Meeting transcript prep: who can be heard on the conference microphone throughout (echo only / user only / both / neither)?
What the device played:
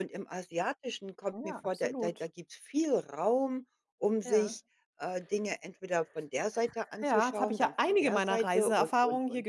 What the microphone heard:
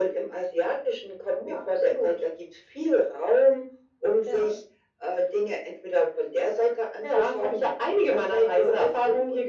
echo only